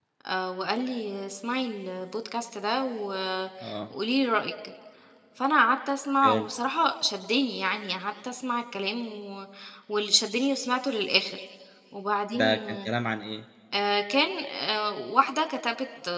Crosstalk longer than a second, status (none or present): none